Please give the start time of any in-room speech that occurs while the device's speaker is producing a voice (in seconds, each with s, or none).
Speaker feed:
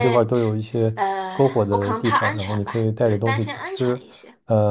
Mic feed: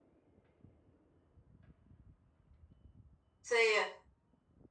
3.4 s